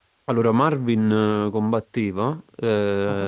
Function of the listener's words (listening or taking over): listening